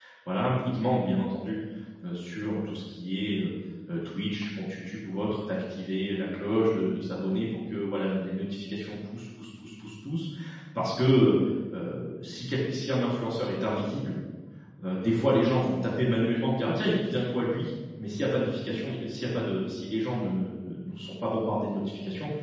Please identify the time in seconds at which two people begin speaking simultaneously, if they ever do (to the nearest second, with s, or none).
none